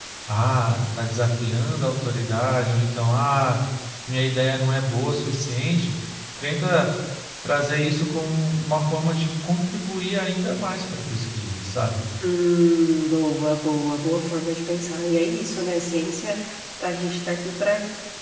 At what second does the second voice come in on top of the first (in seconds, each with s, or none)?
none